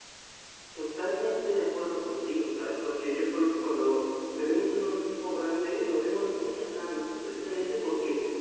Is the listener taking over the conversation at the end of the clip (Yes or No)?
No